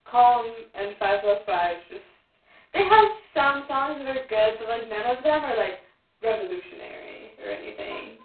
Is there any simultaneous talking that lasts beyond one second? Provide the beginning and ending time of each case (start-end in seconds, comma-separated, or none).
none